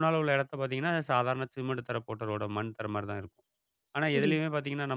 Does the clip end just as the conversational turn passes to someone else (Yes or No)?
No